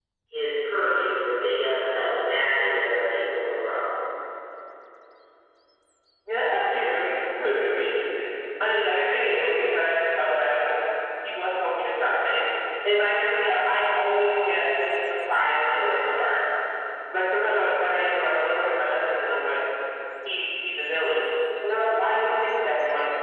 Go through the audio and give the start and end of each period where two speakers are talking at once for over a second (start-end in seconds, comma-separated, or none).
none